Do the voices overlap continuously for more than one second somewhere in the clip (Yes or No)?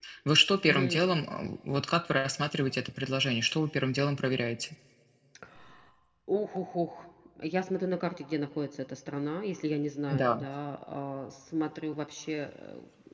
No